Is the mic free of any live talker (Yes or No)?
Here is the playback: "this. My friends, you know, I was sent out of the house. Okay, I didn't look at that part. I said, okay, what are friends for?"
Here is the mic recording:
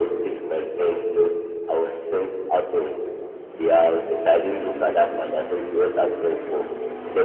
Yes